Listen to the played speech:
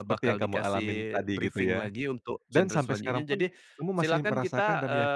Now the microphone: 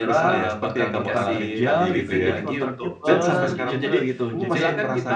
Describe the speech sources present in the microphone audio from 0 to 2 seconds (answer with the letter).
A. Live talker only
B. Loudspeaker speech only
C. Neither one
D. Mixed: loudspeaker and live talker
D